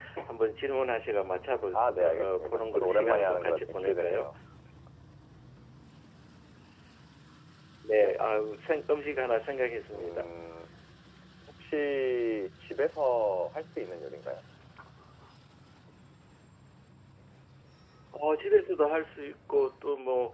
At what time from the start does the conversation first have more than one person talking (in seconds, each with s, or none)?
1.7 s